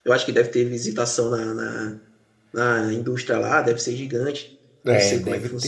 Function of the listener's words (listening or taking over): taking over